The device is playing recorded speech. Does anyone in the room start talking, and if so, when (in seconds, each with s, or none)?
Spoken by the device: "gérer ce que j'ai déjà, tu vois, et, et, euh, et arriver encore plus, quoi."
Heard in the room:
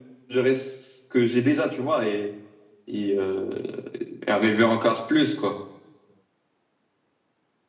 none